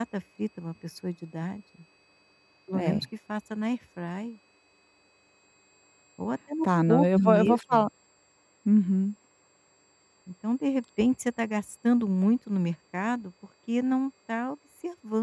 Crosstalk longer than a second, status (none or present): present